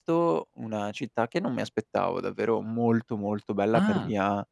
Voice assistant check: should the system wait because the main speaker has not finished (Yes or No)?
Yes